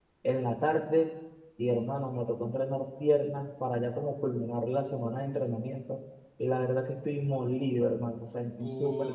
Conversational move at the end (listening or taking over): taking over